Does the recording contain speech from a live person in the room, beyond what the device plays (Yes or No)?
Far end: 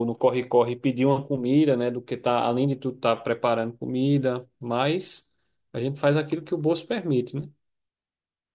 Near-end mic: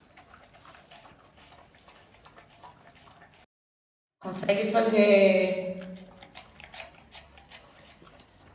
Yes